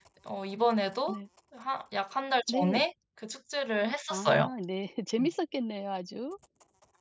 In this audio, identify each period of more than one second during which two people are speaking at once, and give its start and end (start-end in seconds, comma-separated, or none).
none